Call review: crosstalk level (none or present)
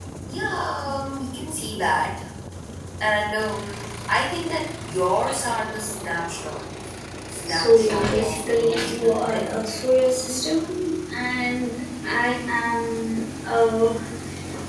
present